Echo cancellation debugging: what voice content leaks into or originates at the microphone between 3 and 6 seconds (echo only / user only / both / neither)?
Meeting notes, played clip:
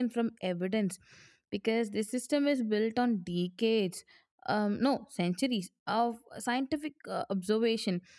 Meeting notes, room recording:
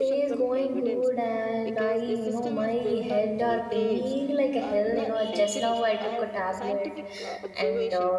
both